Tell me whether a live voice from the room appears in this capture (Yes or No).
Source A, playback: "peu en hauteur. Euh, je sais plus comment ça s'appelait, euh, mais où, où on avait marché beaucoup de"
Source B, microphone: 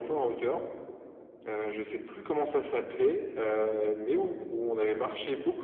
No